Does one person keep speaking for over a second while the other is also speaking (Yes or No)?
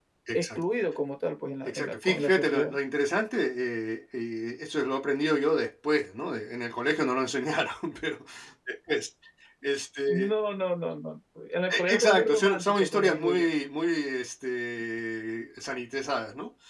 Yes